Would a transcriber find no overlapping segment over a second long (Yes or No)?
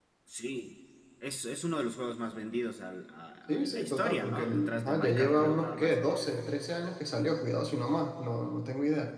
No